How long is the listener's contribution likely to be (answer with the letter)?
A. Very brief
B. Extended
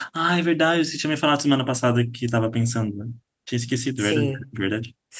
B